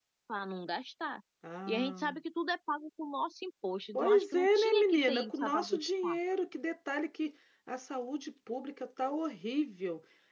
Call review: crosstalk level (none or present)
present